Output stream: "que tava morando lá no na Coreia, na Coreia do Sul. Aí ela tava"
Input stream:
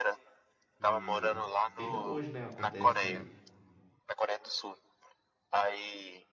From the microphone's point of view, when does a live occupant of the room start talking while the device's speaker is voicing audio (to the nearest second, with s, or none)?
1 s